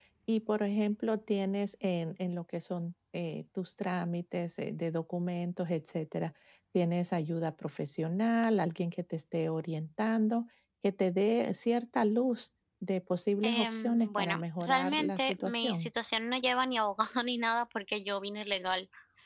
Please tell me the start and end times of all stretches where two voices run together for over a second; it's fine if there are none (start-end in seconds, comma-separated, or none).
13.4-15.9